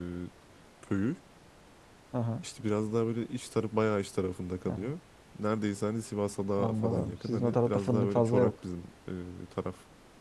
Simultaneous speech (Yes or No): Yes